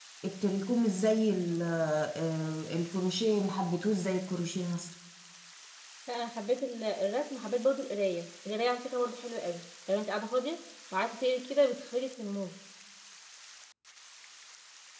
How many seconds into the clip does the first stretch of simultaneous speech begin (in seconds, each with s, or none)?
none